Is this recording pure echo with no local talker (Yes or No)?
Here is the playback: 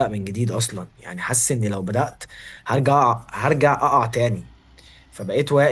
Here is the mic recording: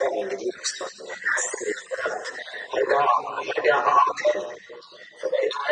Yes